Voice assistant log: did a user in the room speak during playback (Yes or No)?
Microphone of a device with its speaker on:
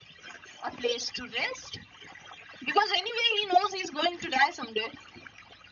No